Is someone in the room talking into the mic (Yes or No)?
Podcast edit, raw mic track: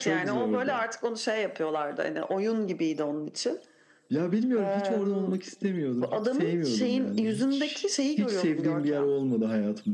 No